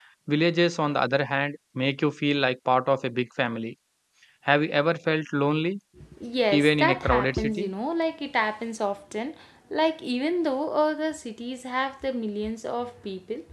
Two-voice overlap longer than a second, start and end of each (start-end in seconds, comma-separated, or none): 6.5-7.7